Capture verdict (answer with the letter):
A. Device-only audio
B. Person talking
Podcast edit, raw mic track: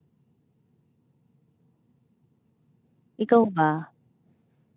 B